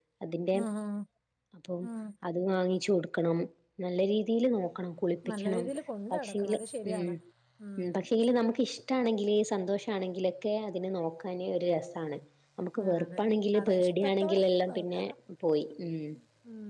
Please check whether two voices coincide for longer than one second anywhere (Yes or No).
Yes